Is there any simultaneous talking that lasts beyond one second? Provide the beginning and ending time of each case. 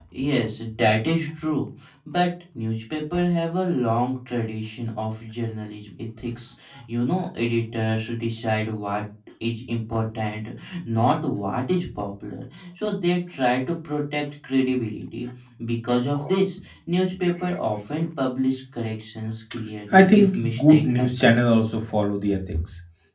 19.9-21.4

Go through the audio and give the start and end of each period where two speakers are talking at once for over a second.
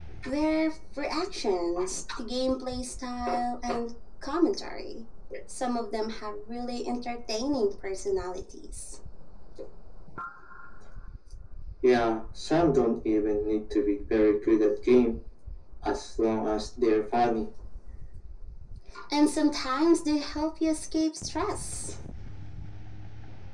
none

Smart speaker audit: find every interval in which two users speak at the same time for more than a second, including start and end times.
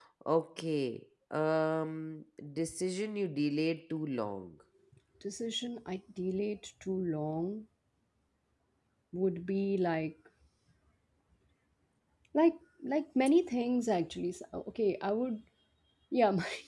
none

